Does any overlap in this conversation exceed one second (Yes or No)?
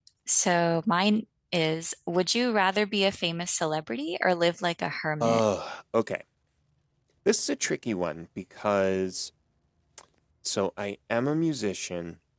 No